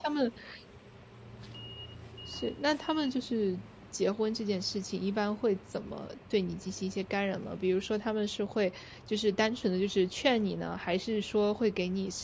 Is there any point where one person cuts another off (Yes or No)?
No